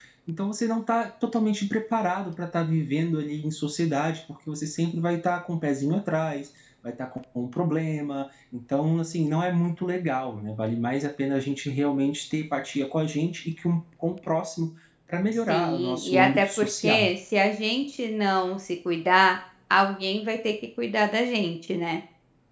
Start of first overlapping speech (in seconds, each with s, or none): 15.5 s